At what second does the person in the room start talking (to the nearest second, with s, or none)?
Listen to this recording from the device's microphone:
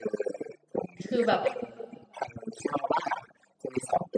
1 s